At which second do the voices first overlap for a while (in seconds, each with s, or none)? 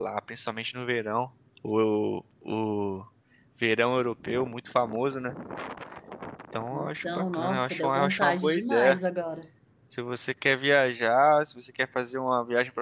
6.7 s